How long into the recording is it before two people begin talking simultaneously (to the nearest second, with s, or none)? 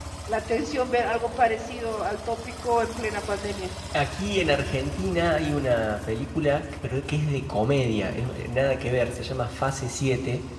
none